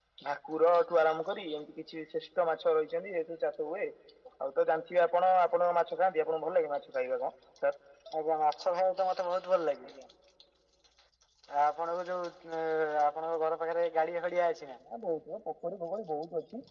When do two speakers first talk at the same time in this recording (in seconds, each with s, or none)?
none